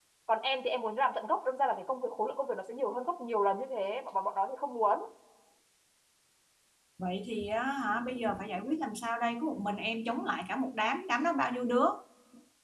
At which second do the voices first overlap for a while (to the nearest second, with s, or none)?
none